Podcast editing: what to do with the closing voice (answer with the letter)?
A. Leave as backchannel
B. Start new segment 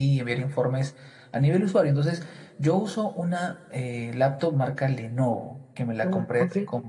A